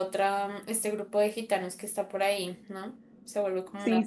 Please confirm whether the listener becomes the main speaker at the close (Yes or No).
Yes